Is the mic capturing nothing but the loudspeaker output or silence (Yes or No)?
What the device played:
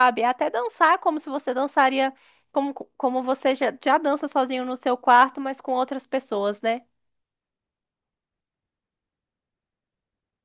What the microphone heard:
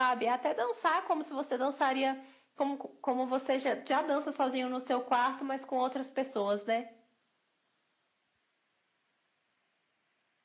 Yes